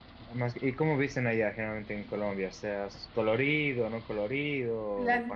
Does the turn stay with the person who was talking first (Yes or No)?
No